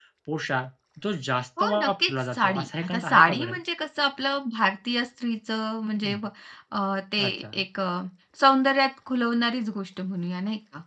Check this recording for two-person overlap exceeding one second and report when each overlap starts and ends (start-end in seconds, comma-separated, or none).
1.6-3.6